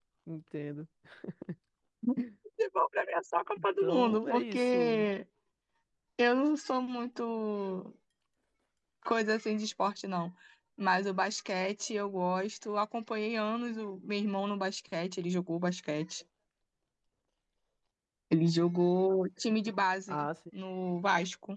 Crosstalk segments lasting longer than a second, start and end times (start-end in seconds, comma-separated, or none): 3.6-5.0